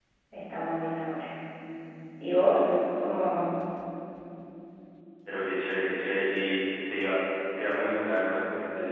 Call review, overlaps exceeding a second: none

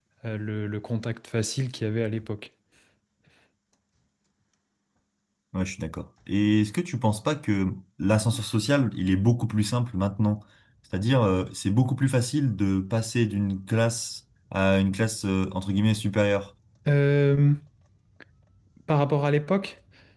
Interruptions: none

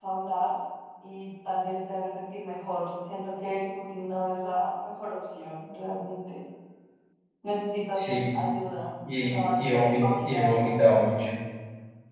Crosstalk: present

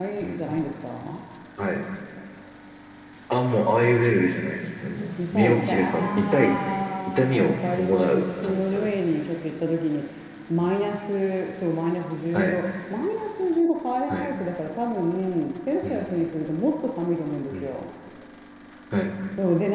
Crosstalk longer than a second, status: present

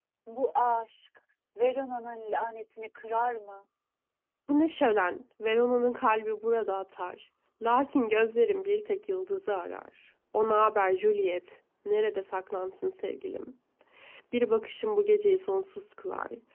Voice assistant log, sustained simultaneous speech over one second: none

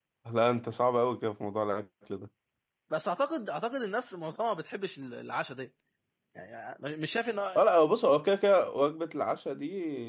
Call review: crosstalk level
none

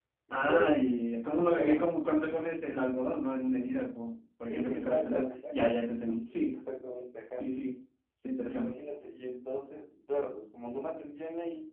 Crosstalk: present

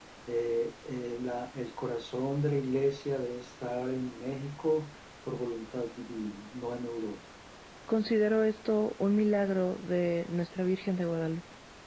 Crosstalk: none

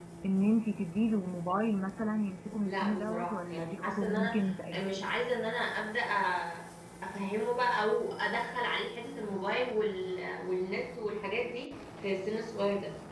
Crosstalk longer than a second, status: present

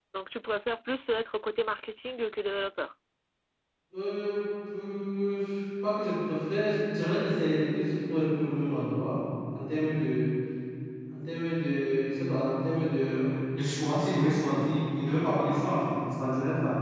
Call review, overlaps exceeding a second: none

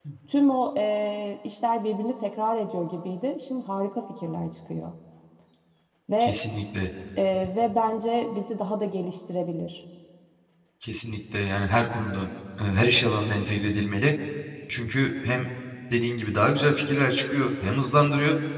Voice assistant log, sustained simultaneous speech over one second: none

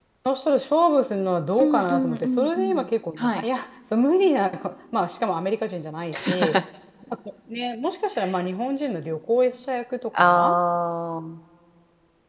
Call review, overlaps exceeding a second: present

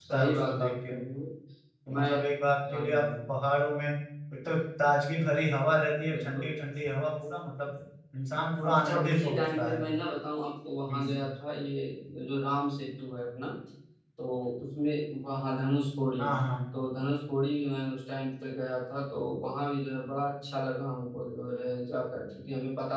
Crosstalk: present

